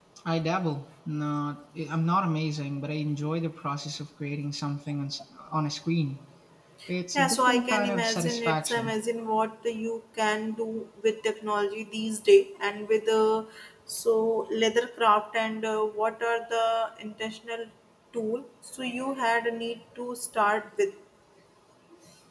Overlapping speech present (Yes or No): Yes